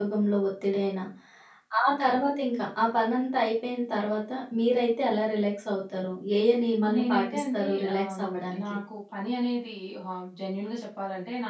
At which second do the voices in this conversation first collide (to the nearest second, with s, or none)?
7 s